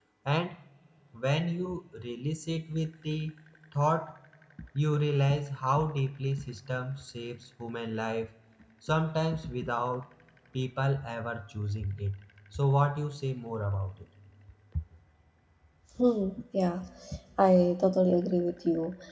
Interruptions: none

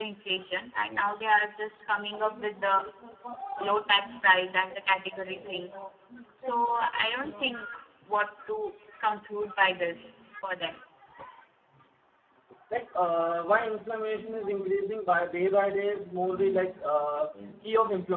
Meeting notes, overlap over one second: none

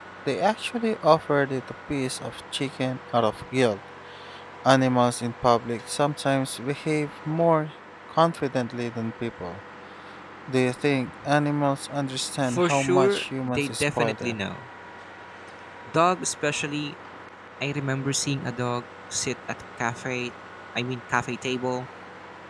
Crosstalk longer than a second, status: present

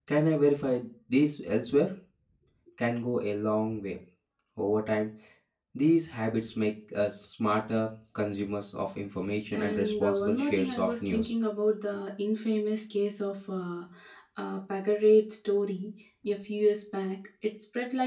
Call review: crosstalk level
present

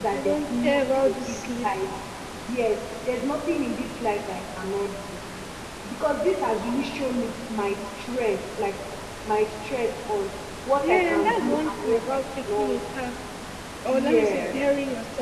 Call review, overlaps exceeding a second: present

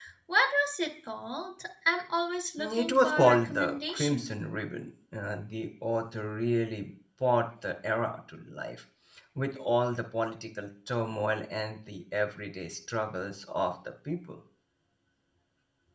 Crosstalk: present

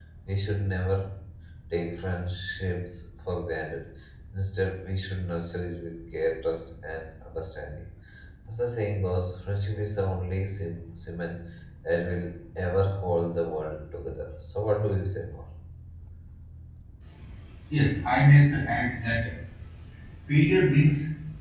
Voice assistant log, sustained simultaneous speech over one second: none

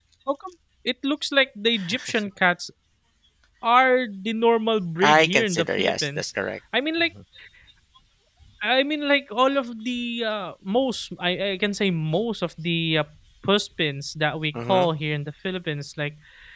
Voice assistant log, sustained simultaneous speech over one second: present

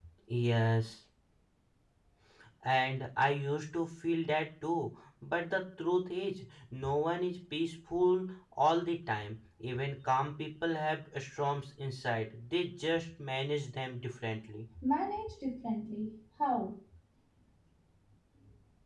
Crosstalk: none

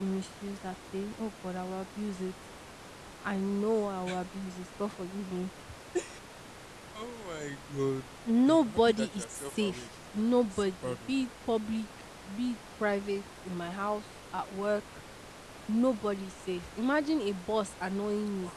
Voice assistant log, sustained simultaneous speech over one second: present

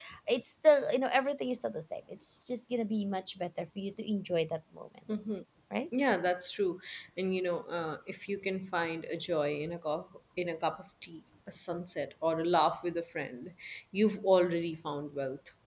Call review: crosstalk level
none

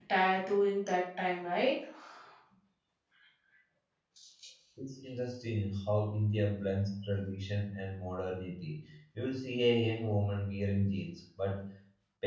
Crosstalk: none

